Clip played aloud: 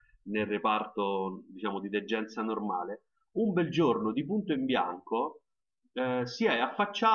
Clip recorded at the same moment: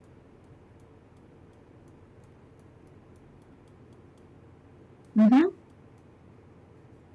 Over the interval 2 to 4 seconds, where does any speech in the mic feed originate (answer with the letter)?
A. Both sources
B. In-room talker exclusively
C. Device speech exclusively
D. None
D